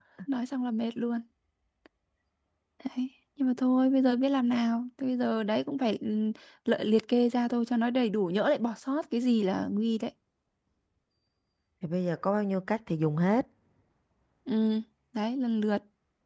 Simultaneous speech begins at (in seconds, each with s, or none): none